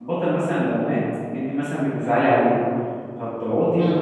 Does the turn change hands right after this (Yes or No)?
No